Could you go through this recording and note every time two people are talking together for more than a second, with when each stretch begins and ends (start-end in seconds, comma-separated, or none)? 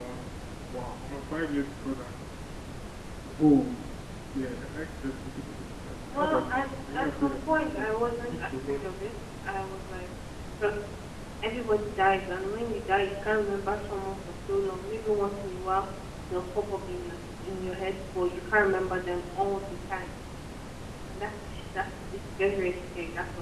6.1-8.8